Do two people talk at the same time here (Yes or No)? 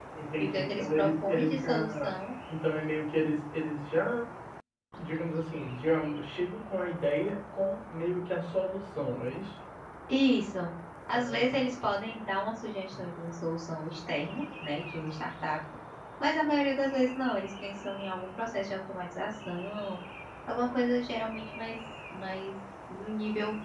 Yes